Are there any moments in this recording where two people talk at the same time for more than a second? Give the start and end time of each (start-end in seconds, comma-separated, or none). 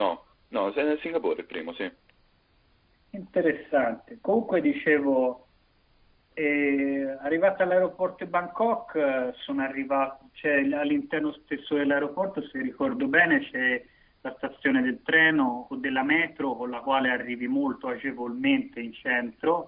none